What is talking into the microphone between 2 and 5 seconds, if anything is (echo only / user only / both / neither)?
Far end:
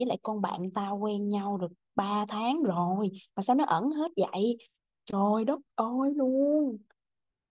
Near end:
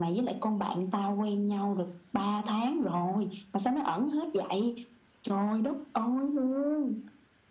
echo only